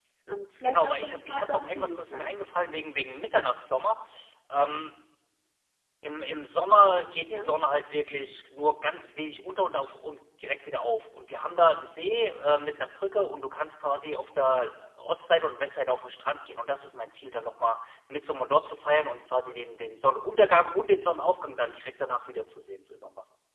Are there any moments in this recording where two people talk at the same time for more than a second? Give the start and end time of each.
0.6-2.6

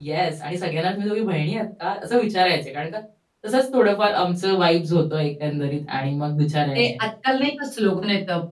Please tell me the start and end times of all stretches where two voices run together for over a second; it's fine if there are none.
none

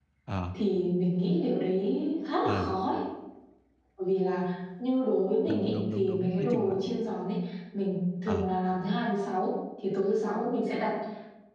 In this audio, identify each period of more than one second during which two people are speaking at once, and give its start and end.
5.5-6.8

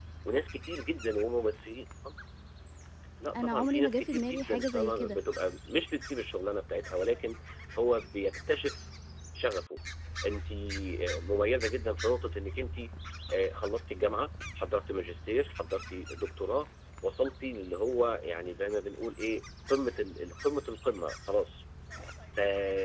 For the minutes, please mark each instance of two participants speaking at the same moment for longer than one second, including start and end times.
3.4-5.2

